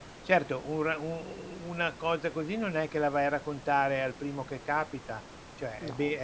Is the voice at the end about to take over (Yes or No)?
No